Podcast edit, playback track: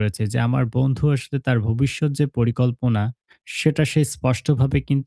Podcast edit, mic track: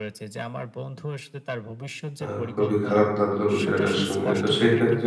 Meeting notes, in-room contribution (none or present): present